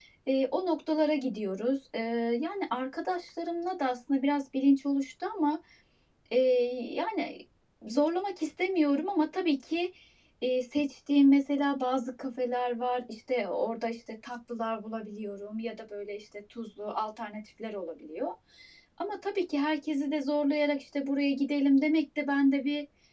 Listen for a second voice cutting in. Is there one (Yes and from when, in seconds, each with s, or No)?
No